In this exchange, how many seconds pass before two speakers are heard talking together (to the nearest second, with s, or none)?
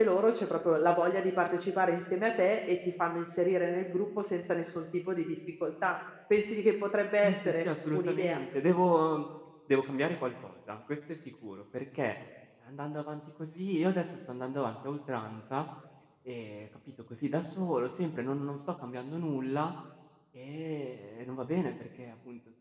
7 s